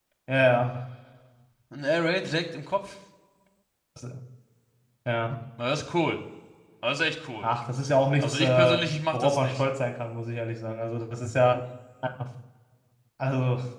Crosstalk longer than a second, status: present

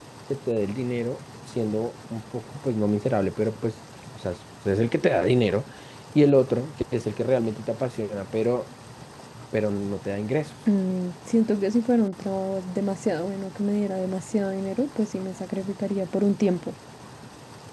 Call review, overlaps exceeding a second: none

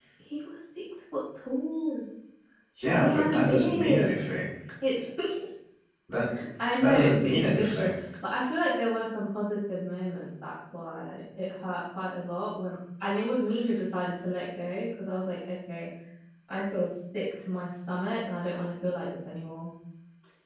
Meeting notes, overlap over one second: present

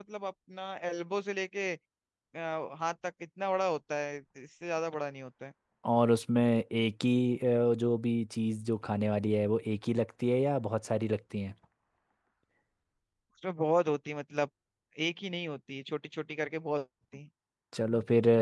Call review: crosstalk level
none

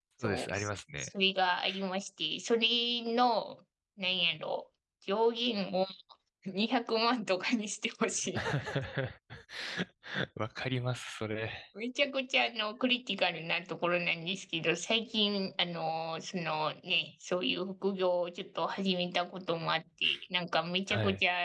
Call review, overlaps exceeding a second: none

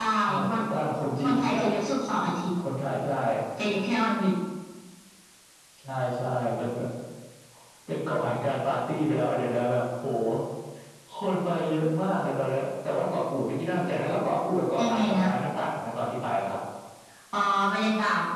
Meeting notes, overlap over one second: none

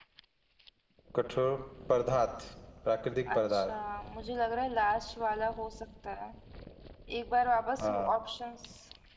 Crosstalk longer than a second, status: none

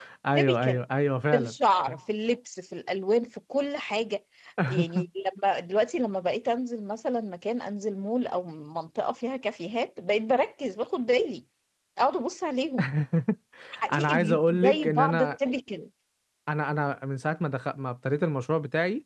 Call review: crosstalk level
present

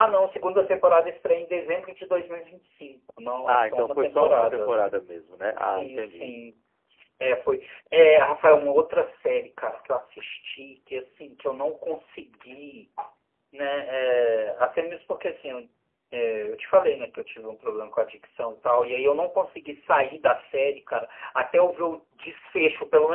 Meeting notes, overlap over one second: present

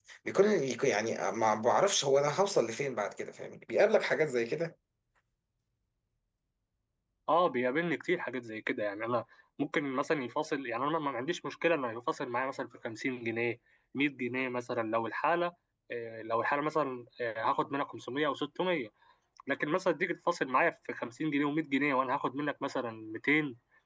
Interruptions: none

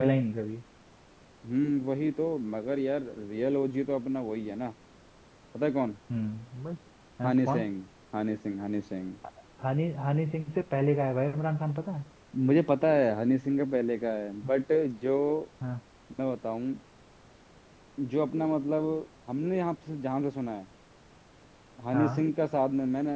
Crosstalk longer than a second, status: none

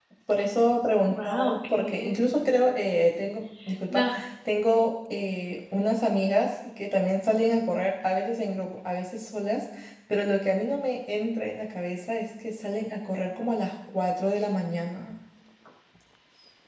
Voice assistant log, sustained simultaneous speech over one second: present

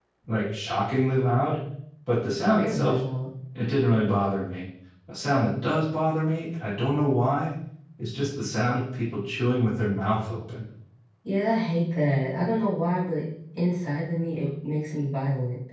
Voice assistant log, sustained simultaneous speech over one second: none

